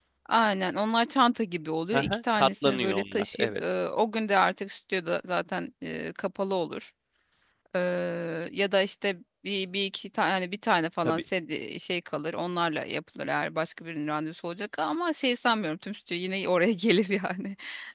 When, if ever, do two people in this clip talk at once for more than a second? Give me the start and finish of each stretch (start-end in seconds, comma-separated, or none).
1.9-3.6